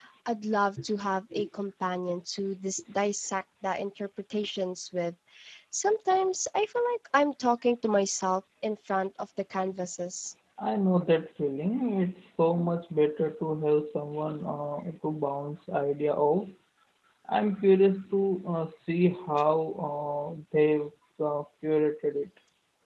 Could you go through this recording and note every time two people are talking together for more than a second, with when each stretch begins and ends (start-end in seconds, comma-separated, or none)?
none